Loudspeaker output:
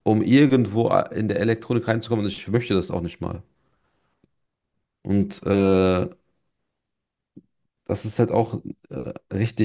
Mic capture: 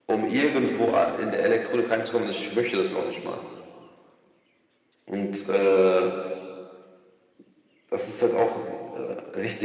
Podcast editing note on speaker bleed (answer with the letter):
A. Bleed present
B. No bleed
A